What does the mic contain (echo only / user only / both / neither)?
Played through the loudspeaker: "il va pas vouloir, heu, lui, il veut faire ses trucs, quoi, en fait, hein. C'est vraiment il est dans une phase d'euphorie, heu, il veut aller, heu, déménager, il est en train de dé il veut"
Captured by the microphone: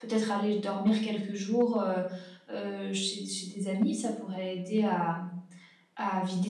user only